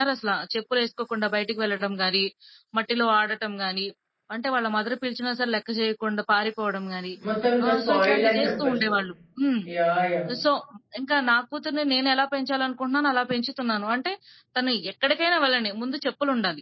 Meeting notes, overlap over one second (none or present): present